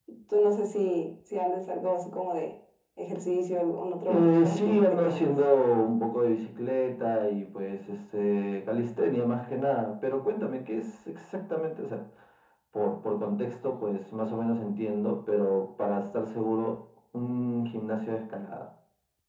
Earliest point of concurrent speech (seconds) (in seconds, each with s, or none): 4.1 s